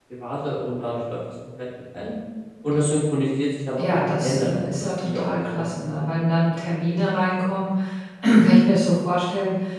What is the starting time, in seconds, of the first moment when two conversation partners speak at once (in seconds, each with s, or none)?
3.8 s